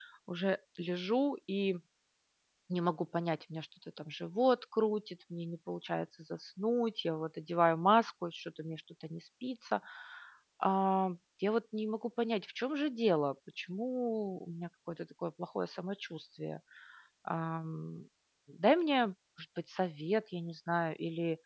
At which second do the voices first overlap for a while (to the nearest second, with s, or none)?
none